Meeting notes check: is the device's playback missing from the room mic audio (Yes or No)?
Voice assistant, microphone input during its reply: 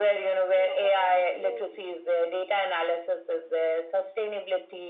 No